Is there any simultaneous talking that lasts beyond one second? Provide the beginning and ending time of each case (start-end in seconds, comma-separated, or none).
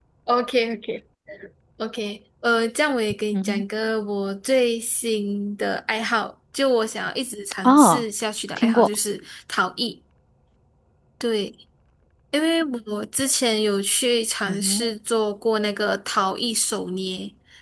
none